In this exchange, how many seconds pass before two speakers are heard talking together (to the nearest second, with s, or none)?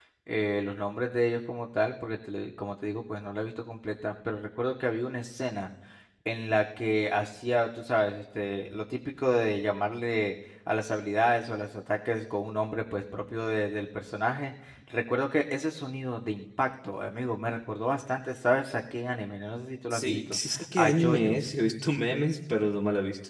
20 s